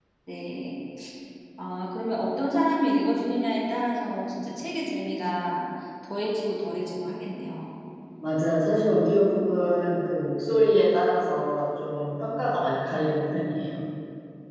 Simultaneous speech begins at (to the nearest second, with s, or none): none